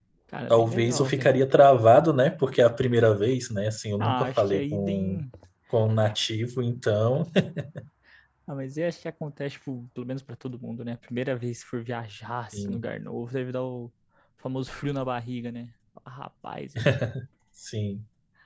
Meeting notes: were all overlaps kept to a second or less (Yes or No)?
No